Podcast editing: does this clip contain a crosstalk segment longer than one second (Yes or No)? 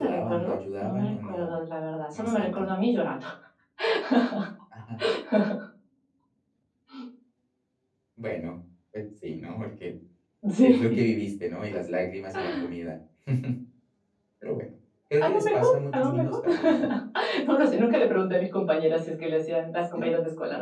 Yes